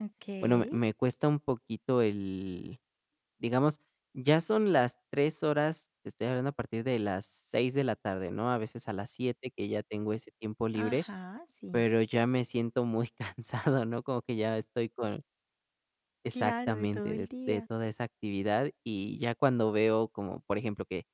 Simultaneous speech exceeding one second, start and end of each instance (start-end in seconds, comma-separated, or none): 16.3-17.6